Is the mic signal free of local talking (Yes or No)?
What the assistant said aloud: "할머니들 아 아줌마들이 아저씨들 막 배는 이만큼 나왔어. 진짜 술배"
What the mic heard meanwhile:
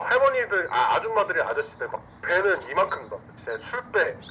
Yes